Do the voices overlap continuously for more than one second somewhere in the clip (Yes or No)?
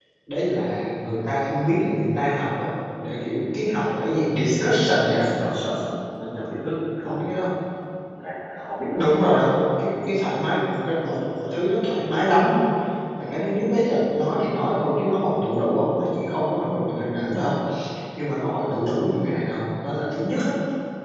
No